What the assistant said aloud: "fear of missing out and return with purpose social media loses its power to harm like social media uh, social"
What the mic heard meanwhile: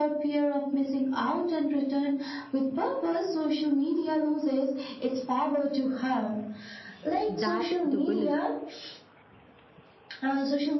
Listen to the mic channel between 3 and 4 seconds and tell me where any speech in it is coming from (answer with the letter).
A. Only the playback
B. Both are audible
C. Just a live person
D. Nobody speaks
A